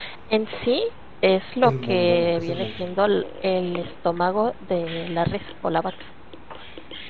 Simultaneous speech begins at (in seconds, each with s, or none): 1.6 s